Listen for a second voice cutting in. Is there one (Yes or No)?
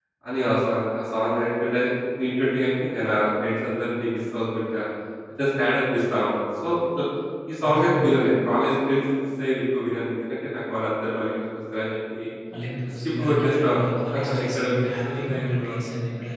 Yes